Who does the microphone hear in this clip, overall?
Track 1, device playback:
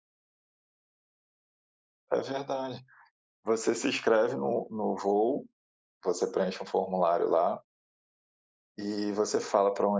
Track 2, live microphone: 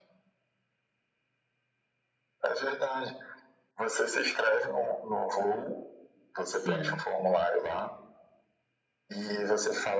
both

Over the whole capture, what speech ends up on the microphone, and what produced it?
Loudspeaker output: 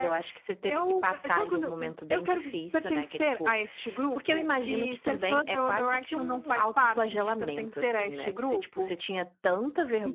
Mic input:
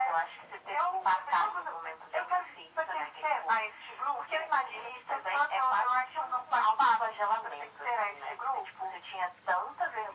echo only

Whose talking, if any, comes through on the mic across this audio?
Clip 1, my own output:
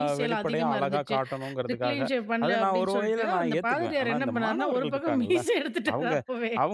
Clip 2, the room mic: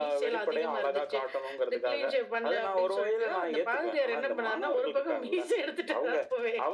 echo only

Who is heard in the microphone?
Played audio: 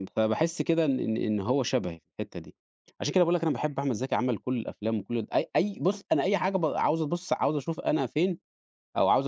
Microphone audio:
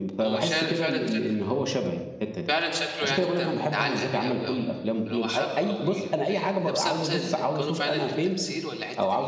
both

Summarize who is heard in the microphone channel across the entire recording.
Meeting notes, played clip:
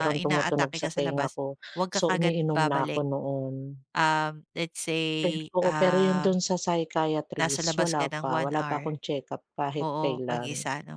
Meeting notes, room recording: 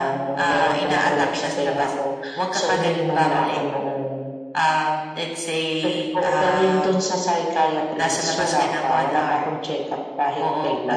echo only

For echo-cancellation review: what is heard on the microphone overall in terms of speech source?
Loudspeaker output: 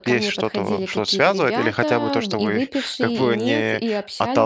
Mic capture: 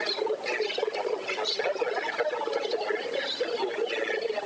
echo only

